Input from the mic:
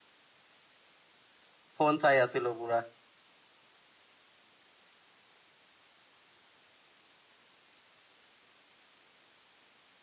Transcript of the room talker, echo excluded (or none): ফোন চাই আছিলো পুৰা।